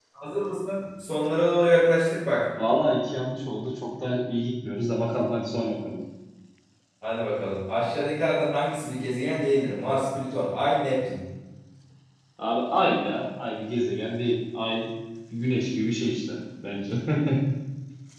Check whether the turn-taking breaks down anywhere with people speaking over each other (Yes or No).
No